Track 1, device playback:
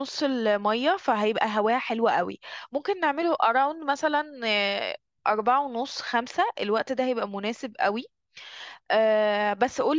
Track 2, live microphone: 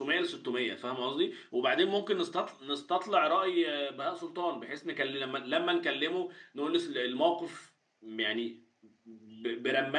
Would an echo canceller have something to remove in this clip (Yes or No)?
No